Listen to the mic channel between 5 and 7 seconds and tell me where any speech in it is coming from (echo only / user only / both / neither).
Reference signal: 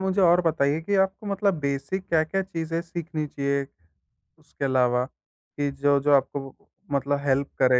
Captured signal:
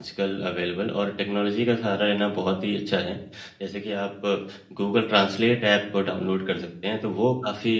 user only